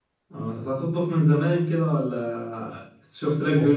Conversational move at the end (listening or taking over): taking over